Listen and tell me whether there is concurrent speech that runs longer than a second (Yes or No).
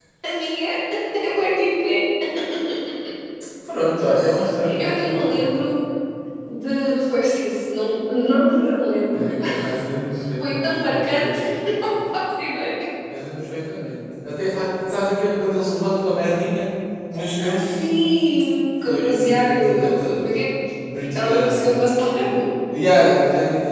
Yes